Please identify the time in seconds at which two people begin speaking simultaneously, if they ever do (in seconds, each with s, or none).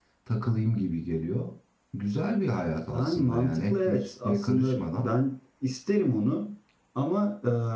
2.9 s